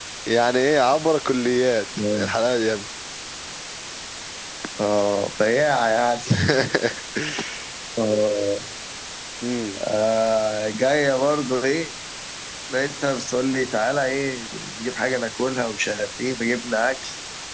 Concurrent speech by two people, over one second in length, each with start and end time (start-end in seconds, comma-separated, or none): none